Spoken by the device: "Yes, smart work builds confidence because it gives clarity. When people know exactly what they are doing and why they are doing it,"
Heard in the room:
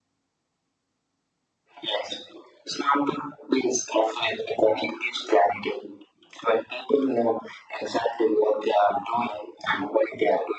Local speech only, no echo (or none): none